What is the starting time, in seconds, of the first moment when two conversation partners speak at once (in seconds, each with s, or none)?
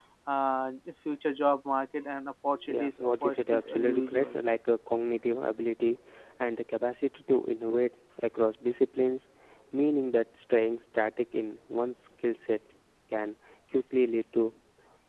2.7 s